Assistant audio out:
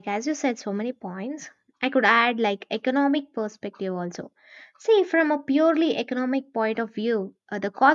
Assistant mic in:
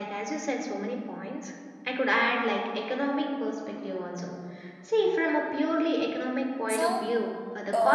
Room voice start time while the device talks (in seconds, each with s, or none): 6.7 s